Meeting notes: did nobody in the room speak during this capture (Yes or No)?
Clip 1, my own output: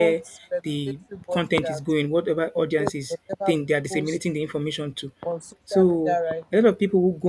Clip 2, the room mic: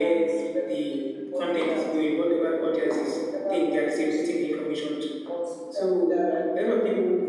Yes